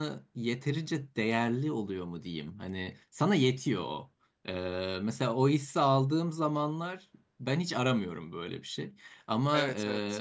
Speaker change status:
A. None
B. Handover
A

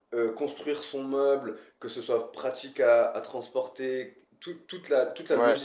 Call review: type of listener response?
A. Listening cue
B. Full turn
A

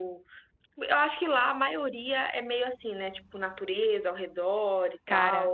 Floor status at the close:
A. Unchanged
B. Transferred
B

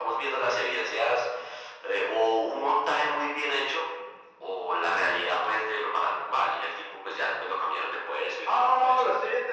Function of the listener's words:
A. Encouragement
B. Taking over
B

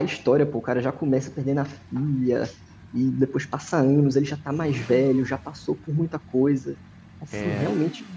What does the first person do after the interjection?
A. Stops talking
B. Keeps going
B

